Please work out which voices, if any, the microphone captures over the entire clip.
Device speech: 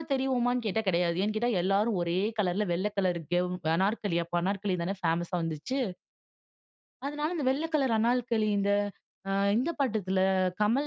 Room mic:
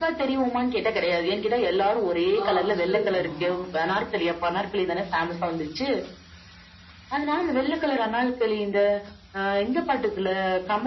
both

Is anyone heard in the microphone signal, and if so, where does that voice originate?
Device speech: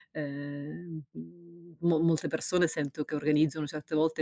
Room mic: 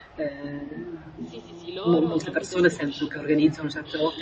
both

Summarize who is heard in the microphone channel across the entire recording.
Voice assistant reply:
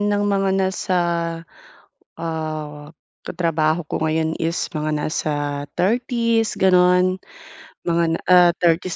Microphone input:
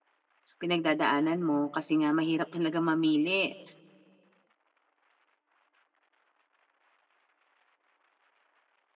user only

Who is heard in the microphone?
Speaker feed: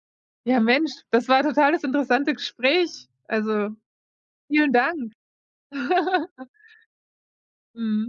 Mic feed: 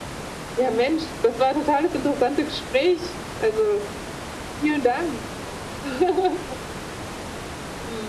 echo only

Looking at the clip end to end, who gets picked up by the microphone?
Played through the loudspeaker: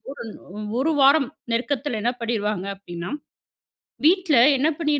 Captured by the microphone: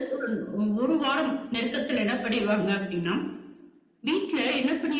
echo only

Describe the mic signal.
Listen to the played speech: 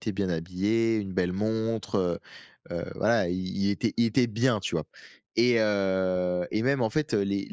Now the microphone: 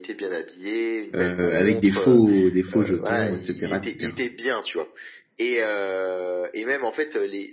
both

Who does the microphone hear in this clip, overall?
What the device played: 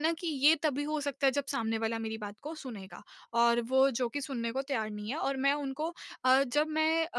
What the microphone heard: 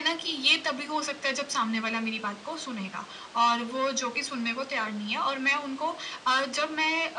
echo only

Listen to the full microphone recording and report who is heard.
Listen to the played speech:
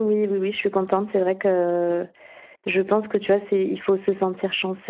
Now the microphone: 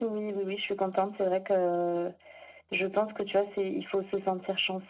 echo only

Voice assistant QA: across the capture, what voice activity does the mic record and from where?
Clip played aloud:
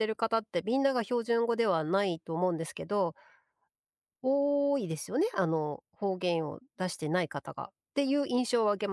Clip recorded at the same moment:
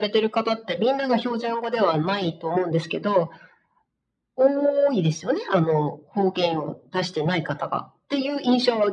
echo only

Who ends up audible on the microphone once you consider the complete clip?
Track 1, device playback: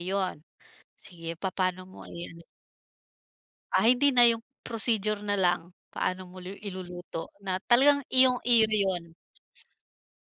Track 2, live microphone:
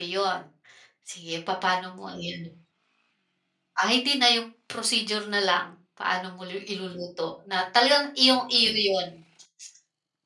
echo only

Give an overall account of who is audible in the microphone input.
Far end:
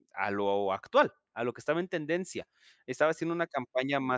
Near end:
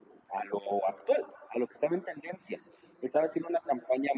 echo only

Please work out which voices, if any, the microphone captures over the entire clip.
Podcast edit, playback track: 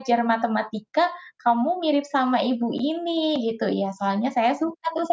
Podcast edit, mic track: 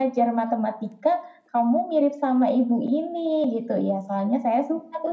echo only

